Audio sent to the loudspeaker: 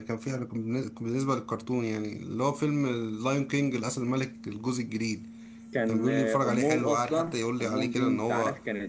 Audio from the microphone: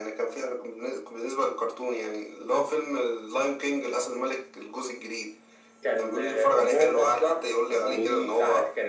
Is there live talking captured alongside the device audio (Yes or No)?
Yes